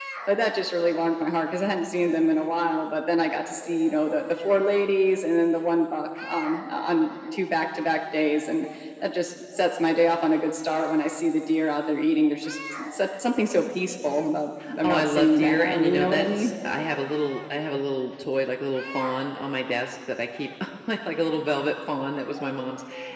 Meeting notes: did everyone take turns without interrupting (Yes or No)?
No